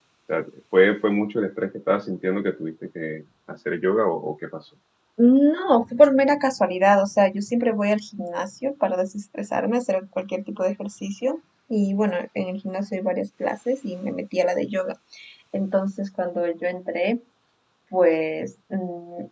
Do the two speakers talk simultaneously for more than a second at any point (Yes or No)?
No